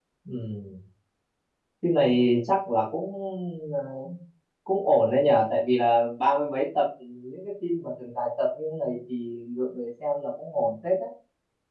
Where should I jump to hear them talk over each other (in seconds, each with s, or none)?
none